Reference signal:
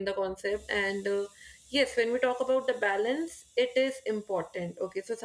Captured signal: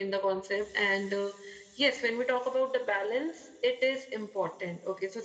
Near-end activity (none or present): none